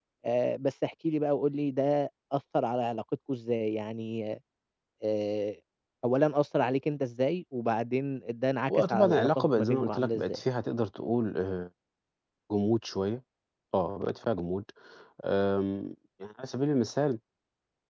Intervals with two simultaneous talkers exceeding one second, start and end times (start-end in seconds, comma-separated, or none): 8.7-10.4